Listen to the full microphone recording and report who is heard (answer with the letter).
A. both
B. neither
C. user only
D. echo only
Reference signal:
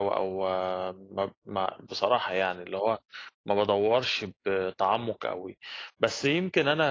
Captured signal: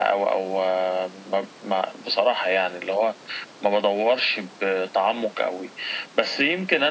D